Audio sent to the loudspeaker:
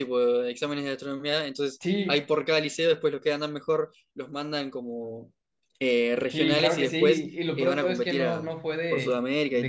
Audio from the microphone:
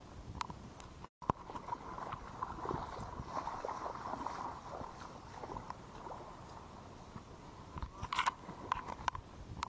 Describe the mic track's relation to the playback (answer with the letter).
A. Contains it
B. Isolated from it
B